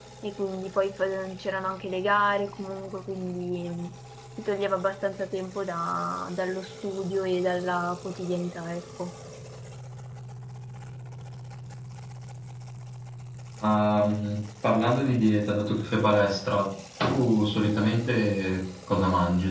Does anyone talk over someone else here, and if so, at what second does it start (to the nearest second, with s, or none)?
none